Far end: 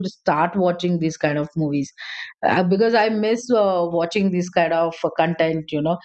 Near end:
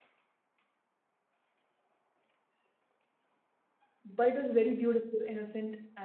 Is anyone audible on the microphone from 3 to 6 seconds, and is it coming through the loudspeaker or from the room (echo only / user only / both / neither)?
user only